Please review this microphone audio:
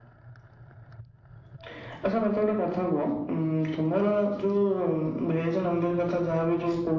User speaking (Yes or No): No